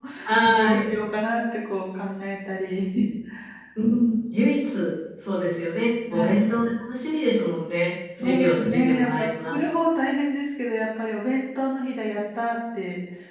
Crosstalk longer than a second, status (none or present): present